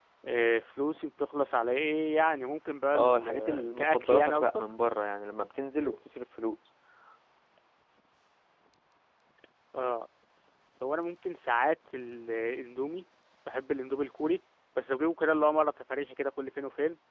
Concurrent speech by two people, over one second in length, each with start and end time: 3.0-4.6

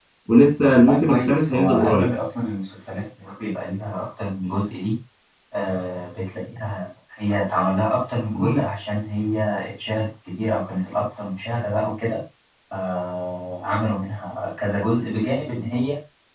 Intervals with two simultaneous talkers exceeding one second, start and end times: 0.9-2.1

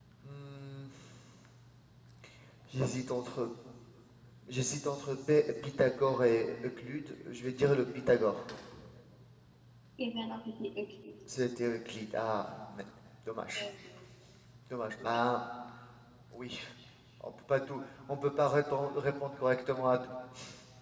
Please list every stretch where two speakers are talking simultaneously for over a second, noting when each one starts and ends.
none

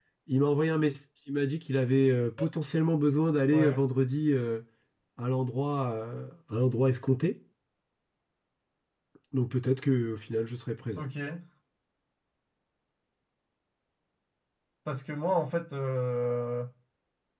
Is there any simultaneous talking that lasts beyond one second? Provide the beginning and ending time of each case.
none

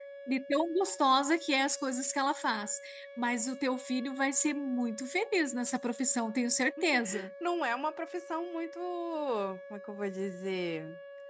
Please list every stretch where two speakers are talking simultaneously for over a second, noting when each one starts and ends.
none

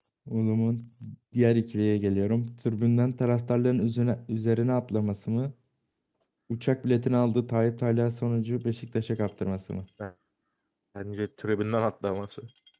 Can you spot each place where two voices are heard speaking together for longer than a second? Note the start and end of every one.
none

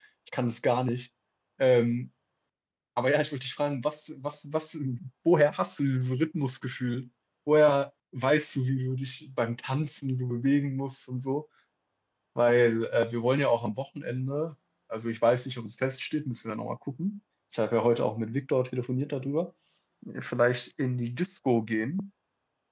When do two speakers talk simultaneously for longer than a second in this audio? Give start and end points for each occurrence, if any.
none

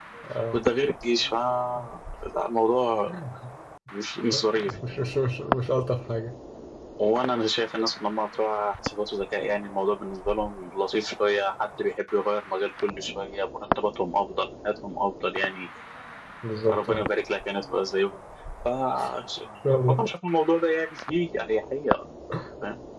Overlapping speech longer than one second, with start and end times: none

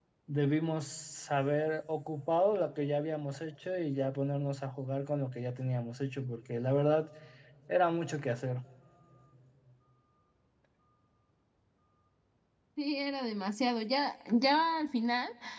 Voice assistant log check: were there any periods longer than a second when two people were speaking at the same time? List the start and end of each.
none

